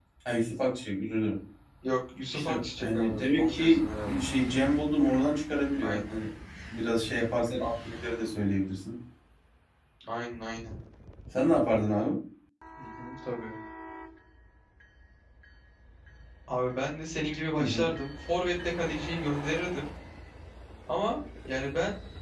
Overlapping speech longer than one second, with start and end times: 2.3-4.2

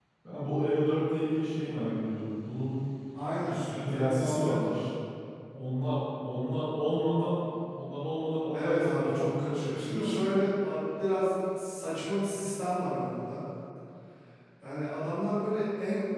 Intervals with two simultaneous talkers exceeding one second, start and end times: 3.4-4.8, 8.5-10.2

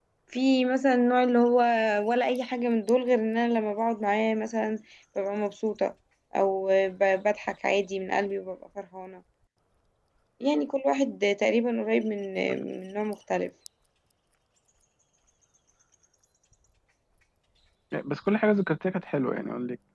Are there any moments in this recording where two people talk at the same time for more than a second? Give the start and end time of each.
none

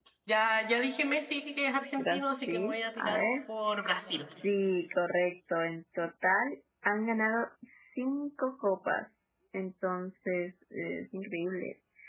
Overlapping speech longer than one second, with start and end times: 2.0-3.2

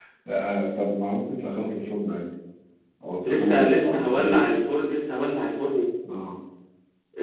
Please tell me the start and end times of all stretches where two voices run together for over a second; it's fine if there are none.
3.3-4.6

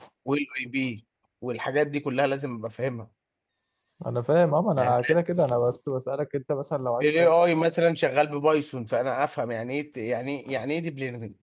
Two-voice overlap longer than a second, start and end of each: none

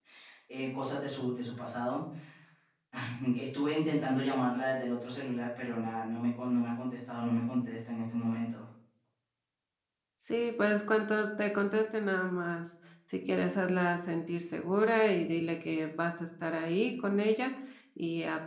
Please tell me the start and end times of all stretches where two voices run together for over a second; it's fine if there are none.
none

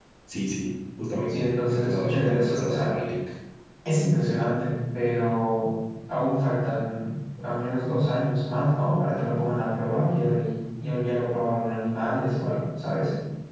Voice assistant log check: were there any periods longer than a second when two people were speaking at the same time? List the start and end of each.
1.3-2.9

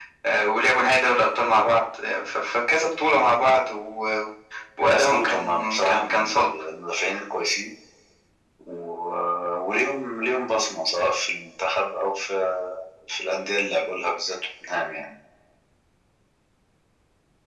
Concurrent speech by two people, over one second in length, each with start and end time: 4.9-6.5

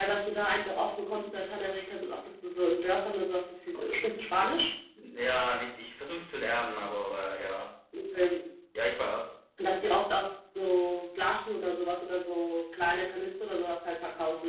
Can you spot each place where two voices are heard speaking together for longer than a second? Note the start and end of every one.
none

